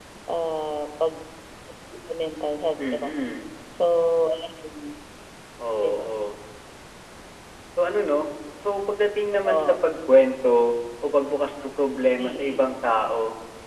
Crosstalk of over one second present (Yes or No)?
No